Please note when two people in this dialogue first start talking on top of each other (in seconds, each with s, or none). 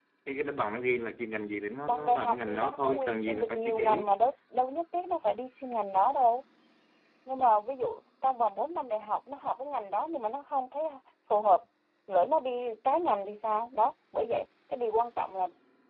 1.9 s